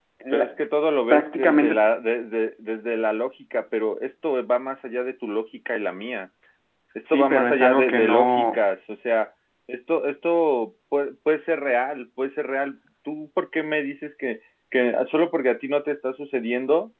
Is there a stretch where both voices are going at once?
Yes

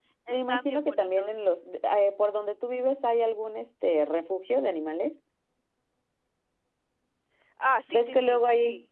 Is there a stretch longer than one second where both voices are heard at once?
Yes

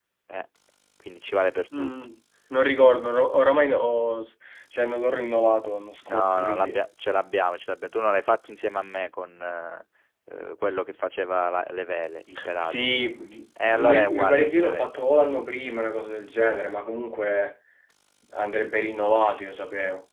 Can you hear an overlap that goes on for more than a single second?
Yes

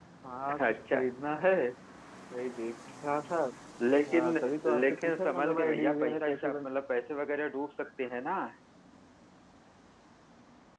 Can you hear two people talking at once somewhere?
Yes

